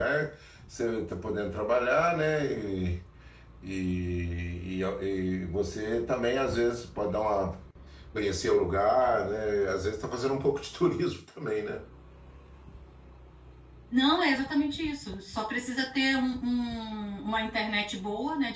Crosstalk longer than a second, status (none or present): none